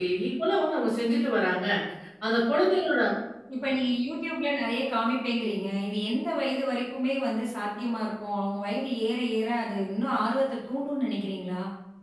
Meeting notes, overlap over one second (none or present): none